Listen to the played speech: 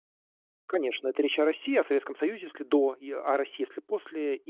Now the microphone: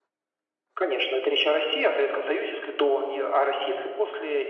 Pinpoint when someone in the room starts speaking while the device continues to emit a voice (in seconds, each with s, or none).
none